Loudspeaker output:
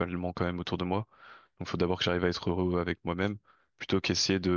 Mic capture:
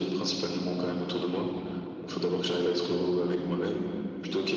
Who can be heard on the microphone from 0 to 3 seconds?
echo only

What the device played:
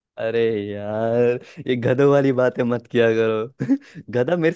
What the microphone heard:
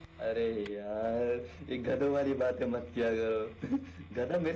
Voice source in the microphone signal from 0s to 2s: echo only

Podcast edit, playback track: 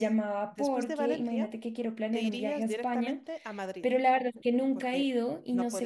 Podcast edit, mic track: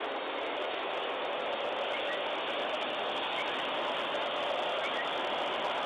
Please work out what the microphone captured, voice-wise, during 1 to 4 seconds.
neither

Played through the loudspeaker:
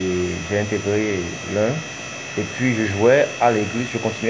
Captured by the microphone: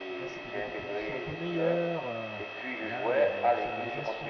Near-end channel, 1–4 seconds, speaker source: both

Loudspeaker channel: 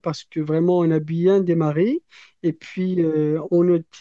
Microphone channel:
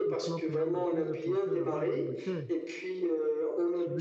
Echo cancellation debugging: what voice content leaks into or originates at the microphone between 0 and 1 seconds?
both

